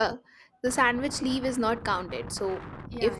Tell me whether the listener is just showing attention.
Yes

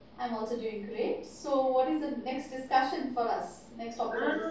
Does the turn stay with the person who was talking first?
No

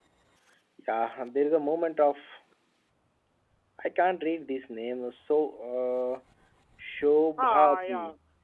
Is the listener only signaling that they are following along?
No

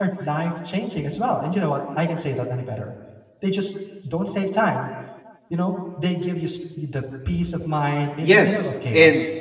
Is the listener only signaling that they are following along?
No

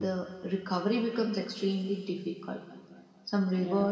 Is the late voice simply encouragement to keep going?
Yes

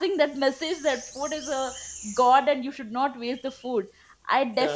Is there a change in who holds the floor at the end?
No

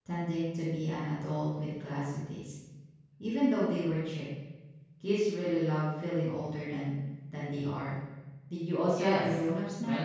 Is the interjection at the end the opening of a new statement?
Yes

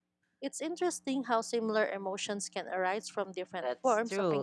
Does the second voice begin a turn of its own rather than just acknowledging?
Yes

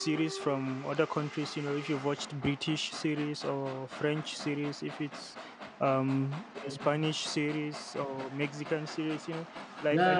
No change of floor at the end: No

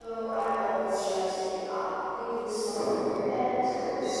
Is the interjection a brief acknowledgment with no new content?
No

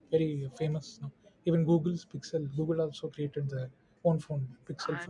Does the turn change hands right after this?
Yes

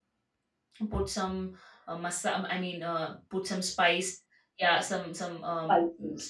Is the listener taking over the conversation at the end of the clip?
No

